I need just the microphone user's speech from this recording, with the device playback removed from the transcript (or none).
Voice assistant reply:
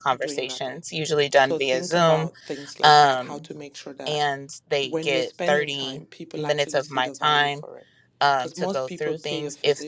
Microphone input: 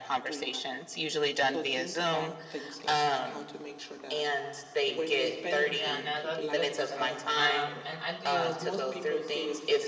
Yeah, no, that's good stuff. Um, and I do